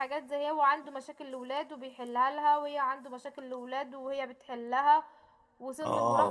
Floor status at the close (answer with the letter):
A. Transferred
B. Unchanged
B